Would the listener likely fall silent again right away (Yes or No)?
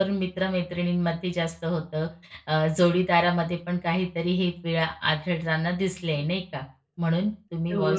Yes